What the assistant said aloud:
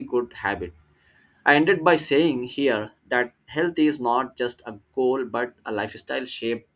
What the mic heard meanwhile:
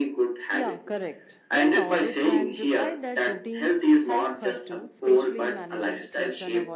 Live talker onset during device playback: 0.5 s

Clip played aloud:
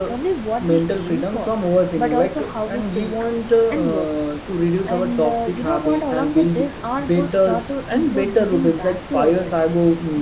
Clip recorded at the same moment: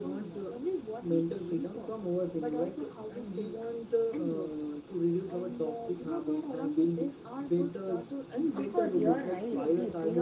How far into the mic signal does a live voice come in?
8.5 s

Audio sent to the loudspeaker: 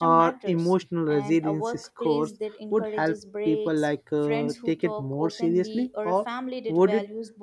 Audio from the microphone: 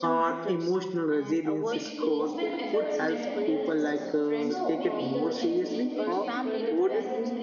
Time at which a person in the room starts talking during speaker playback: 1.6 s

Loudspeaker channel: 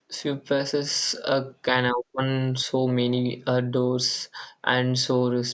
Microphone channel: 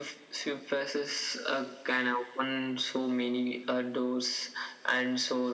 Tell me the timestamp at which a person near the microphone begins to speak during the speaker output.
none

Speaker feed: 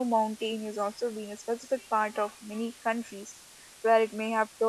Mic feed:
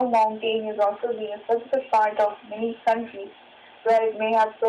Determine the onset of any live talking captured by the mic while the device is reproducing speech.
none

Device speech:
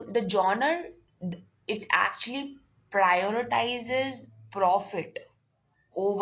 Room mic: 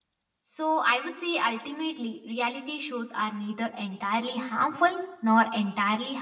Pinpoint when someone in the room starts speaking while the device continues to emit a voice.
0.4 s

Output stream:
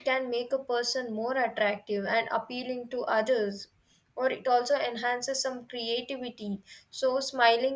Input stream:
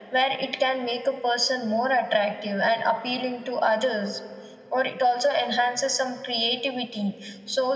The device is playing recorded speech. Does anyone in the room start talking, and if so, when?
none

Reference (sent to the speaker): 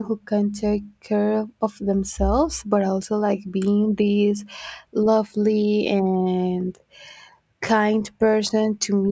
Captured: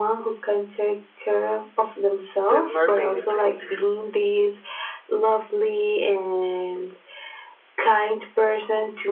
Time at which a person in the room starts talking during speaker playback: 2.5 s

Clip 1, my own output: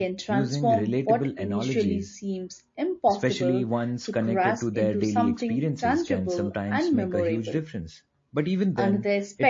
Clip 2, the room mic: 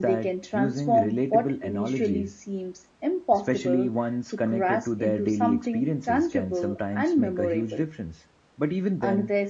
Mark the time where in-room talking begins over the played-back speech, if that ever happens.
none

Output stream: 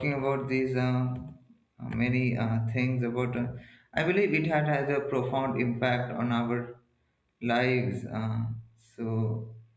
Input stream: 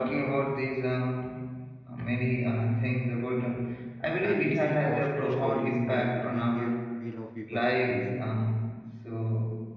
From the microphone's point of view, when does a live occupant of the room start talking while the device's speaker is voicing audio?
4.2 s

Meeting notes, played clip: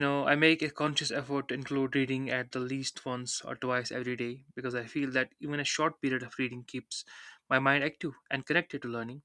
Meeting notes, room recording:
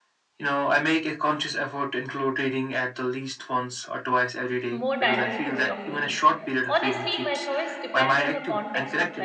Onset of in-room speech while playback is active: 4.7 s

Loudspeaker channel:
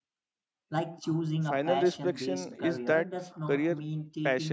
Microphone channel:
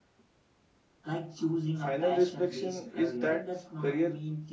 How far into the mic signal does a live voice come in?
none

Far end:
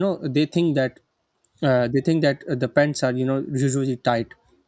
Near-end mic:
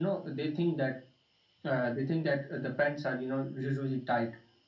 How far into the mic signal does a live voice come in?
none

